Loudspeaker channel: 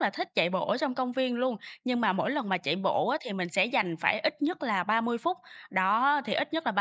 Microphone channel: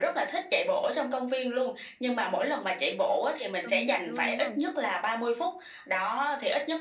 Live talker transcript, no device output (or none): công nhận luôn, đúng không?